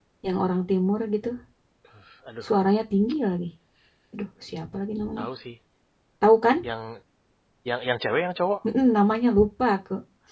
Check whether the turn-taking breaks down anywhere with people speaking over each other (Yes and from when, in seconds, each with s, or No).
No